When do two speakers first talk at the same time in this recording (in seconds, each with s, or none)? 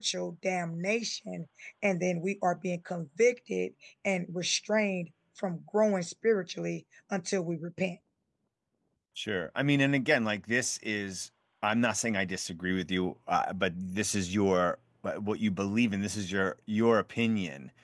none